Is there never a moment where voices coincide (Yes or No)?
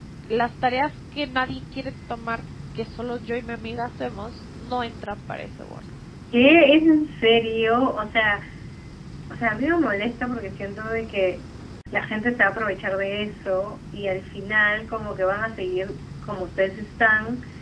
Yes